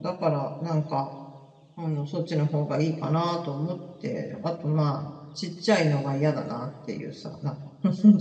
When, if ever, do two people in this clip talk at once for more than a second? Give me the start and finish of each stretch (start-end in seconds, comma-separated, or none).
none